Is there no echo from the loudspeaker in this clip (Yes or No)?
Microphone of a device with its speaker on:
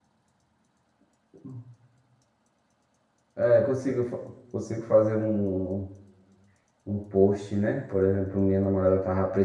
Yes